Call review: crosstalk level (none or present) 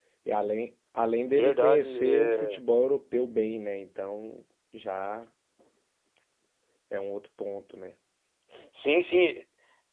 present